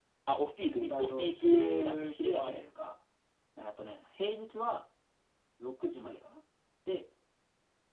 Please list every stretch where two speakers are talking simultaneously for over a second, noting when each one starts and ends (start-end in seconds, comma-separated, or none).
0.6-2.6